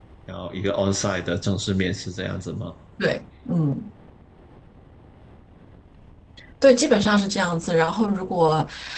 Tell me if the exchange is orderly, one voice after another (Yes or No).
Yes